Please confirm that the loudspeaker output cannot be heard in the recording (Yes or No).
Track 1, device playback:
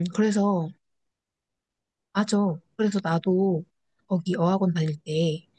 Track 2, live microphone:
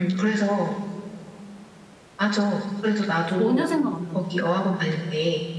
No